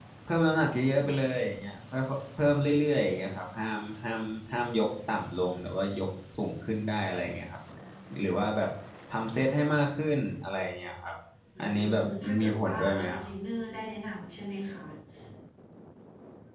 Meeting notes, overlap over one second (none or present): present